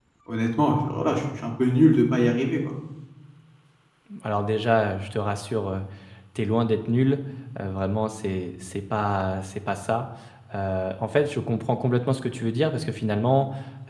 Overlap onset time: none

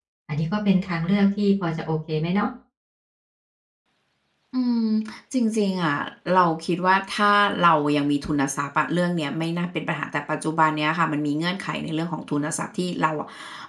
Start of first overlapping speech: none

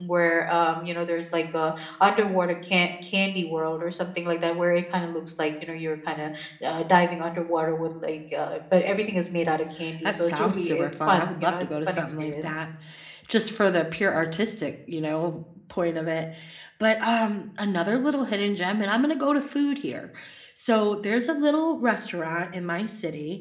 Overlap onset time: 9.8 s

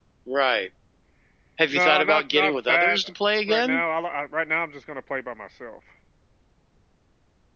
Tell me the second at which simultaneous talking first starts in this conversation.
1.7 s

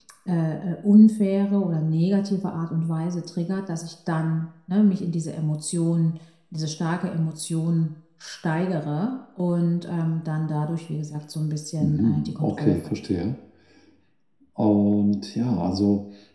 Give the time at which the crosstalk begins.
11.8 s

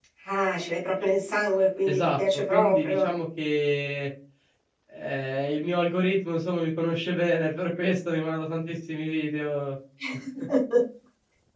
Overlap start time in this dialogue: 1.9 s

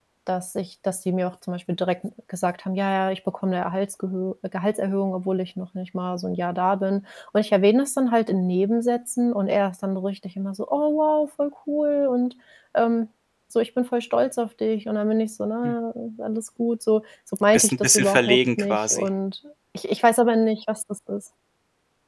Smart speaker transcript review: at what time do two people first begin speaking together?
17.5 s

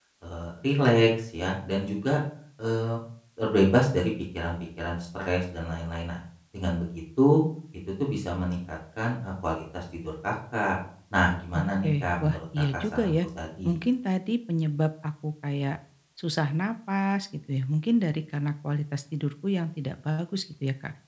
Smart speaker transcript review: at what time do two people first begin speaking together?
11.5 s

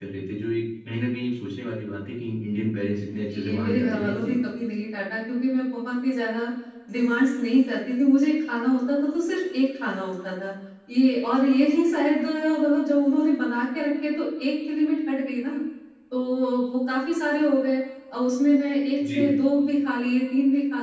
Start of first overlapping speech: 3.1 s

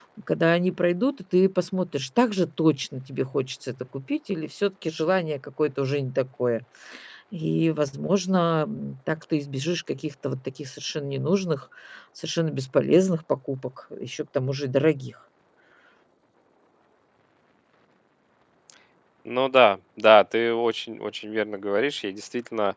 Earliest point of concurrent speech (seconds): none

